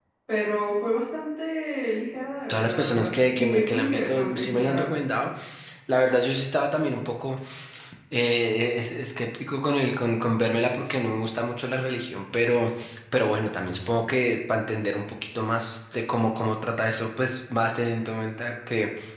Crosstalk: present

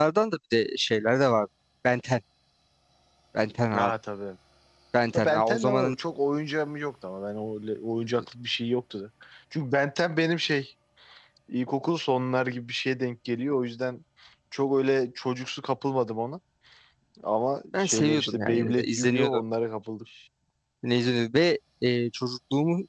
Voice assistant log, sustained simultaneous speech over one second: present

